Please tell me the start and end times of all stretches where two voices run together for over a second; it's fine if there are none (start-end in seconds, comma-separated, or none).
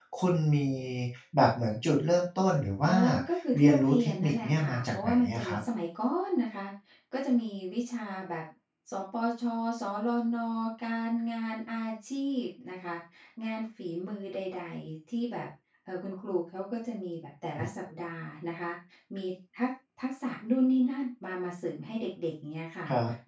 3.6-5.6